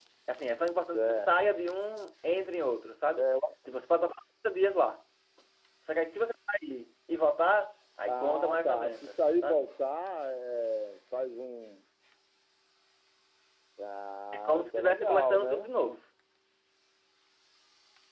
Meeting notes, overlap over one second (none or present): present